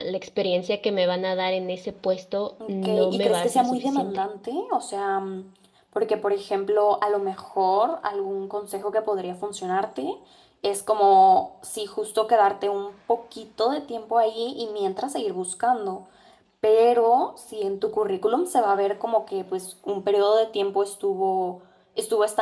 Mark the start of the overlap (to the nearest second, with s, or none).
3 s